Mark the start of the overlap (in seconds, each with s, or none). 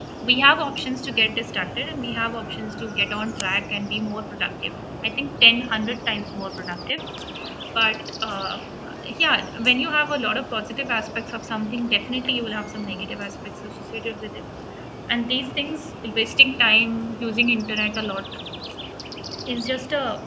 none